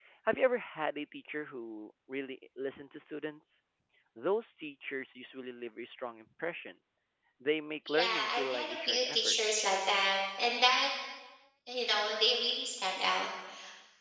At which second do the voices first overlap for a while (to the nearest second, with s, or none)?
8 s